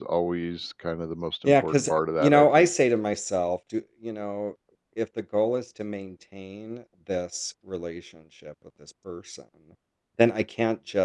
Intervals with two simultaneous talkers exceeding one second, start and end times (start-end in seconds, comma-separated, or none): 1.4-2.7